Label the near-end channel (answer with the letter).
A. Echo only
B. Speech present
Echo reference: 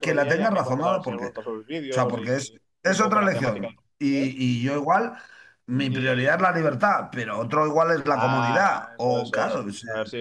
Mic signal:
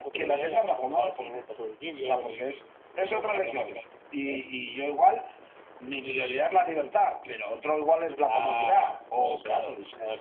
A